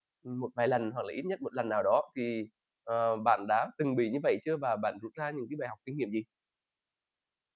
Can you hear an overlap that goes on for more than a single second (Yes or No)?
No